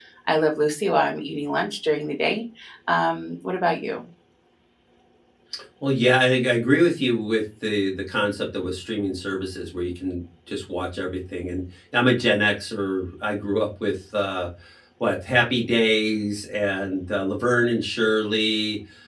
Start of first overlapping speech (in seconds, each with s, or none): none